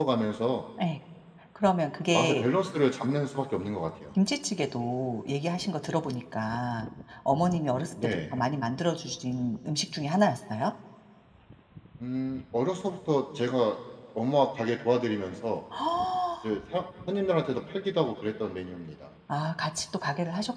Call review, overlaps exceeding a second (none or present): none